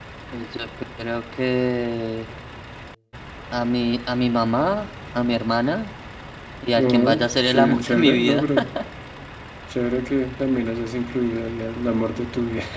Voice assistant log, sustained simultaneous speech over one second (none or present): present